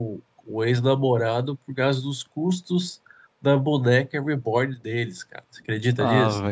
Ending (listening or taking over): taking over